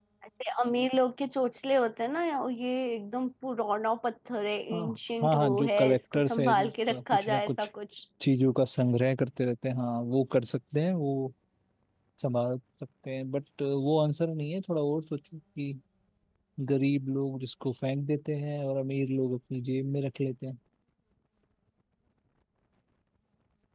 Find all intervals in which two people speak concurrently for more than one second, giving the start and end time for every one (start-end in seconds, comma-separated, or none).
5.2-7.7